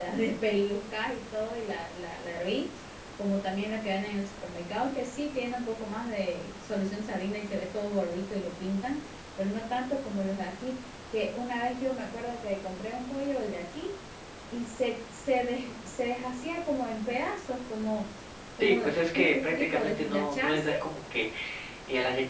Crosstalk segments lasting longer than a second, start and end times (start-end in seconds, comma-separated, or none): 18.6-20.7